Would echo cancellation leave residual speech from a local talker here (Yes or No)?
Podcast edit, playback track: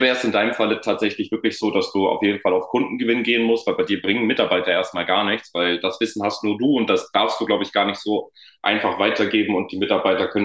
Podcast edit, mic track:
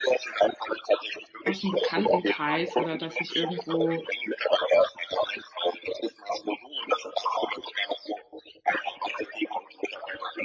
Yes